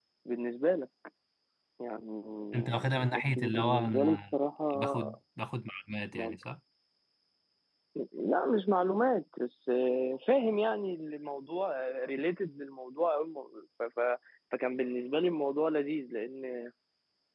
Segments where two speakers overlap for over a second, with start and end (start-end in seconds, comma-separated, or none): 2.5-4.2